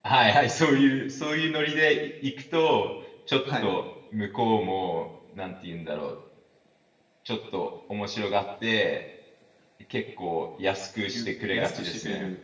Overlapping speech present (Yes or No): Yes